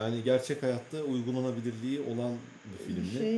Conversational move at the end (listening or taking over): listening